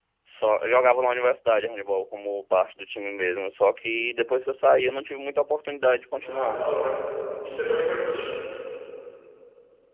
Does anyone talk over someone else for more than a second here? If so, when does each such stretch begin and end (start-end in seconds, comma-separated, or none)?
none